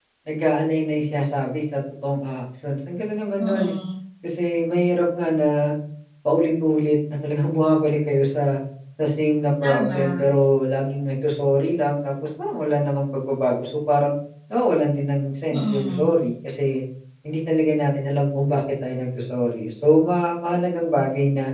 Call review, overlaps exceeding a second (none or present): none